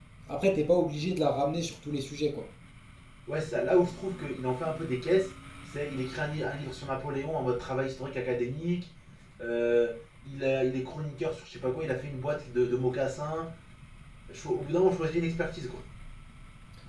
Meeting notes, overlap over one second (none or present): none